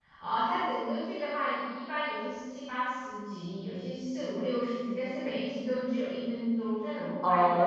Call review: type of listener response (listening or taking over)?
taking over